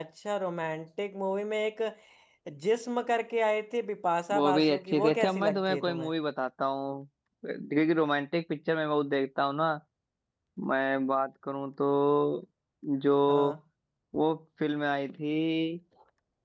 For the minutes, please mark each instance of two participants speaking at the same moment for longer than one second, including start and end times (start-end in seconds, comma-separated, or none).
4.3-6.1